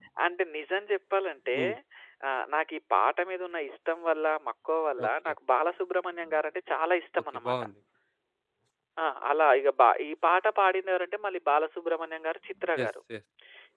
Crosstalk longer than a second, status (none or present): none